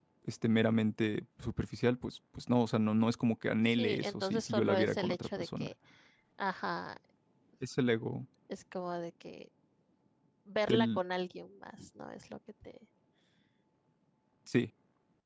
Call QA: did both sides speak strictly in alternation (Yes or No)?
No